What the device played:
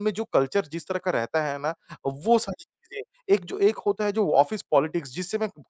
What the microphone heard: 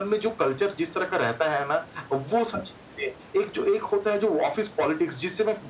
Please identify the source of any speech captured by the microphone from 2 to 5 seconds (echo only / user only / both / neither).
echo only